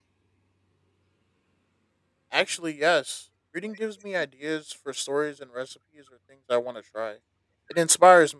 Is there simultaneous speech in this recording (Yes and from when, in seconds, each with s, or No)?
No